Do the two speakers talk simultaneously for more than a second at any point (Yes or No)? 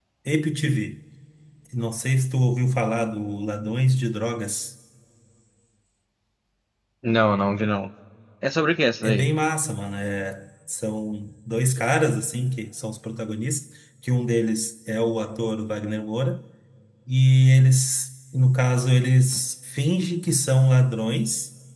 No